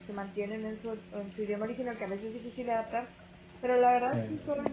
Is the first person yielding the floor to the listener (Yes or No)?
No